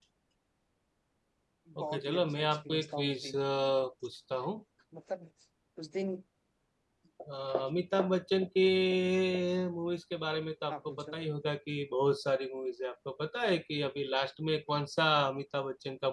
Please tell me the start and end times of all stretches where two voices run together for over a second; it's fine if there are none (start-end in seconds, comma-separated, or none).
1.8-3.4